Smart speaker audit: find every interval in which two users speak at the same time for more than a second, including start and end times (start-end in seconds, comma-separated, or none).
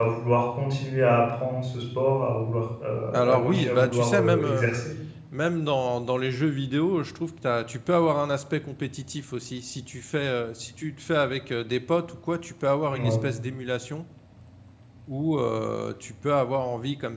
3.1-4.7